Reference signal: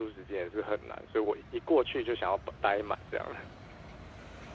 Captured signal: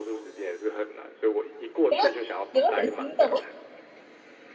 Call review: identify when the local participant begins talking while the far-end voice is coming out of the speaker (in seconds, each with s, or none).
1.9 s